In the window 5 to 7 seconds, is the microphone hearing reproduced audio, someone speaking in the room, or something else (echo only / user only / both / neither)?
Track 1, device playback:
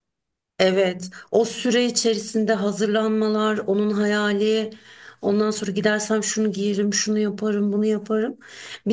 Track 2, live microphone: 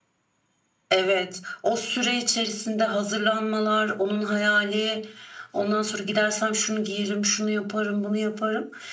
echo only